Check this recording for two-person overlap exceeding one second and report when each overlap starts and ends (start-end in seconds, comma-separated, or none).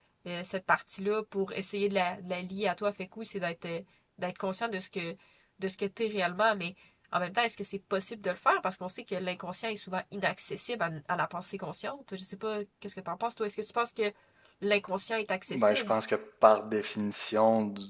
none